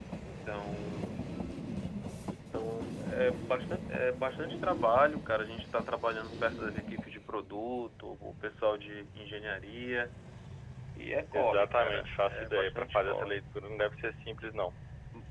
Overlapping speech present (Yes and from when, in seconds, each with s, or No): Yes, from 11.3 s